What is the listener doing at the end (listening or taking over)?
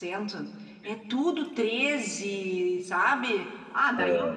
listening